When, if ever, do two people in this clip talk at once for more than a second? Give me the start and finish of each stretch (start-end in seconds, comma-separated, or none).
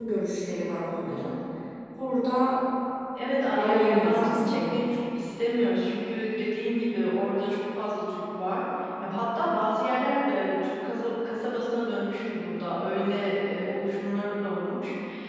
3.2-4.8